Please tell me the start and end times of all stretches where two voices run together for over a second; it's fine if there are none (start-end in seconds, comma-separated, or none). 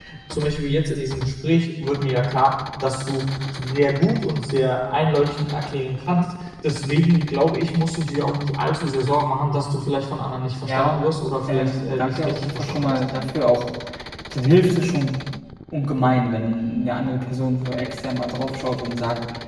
11.5-13.0